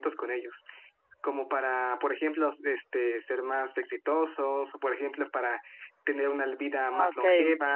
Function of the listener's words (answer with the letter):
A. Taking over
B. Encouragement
B